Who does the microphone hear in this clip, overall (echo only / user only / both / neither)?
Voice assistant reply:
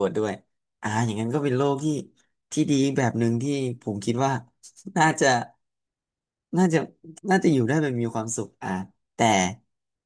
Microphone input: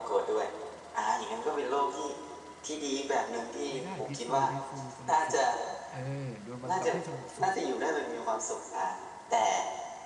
both